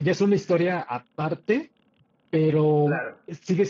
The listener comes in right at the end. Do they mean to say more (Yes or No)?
No